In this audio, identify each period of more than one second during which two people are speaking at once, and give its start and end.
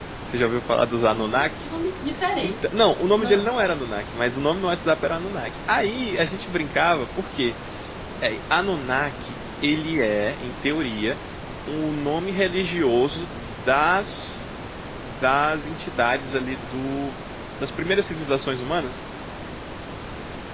none

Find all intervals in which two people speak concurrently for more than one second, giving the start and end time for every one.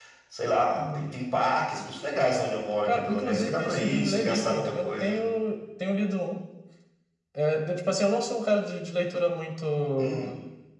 2.9-5.2

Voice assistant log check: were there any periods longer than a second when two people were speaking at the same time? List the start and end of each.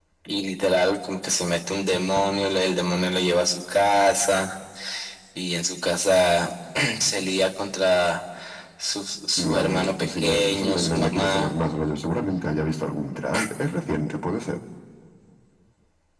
9.4-11.5

